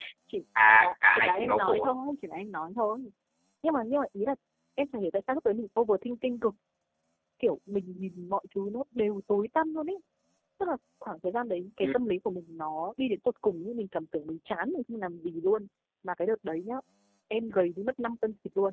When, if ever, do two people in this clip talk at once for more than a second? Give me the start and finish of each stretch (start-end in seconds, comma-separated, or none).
0.7-1.9